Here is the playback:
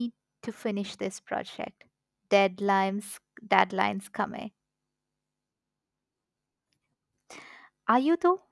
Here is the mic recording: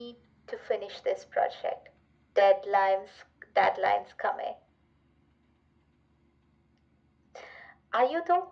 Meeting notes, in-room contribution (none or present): none